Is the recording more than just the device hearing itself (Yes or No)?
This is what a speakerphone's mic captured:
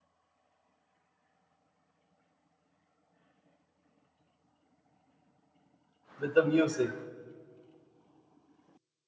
Yes